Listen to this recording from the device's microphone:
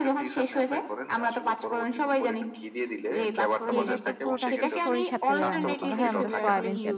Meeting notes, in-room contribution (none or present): present